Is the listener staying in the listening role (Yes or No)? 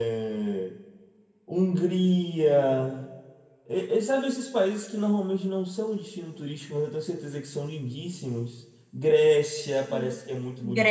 No